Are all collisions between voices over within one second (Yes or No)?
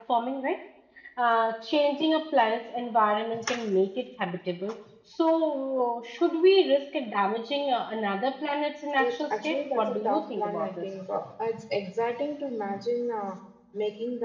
No